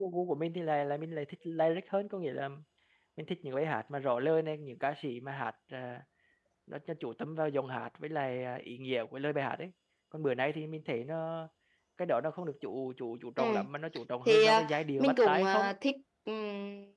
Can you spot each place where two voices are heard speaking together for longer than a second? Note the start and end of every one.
14.3-15.7

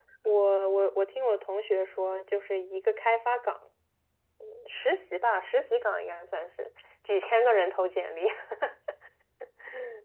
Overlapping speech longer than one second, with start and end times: none

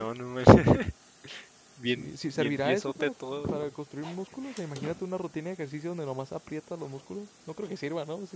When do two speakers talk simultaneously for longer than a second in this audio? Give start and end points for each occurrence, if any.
1.9-3.4

